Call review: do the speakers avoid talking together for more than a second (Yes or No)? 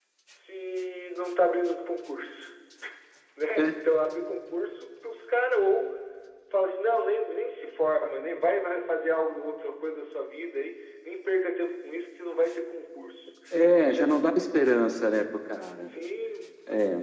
Yes